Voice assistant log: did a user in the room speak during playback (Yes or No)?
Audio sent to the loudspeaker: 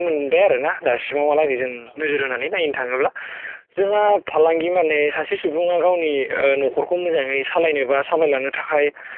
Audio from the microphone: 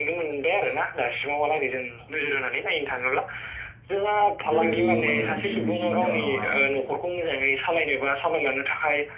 Yes